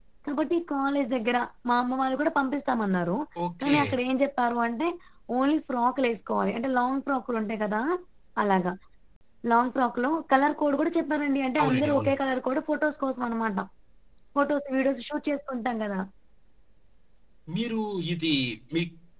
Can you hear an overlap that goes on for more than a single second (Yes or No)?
No